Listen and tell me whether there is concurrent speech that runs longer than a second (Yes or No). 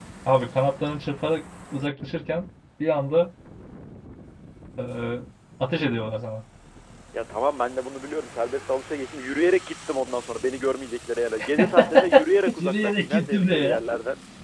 Yes